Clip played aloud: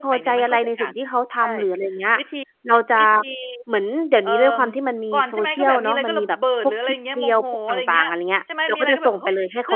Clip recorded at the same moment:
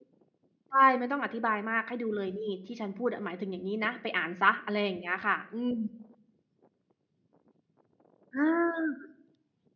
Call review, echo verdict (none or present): none